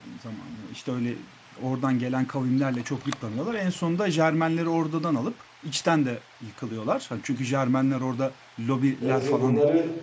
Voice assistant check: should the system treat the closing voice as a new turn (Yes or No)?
Yes